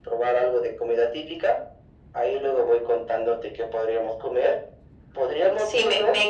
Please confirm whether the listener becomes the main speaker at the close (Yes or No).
Yes